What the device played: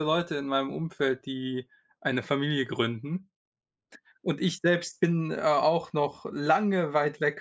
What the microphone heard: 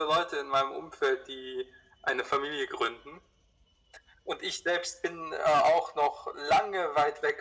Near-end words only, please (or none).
none